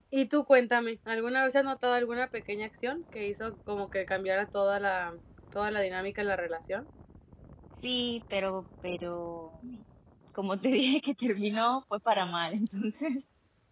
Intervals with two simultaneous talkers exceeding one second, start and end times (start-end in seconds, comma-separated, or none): none